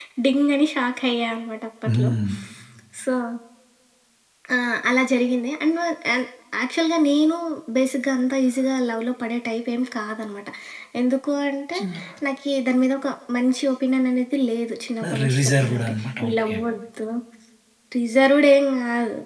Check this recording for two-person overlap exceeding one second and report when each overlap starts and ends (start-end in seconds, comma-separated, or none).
15.2-16.5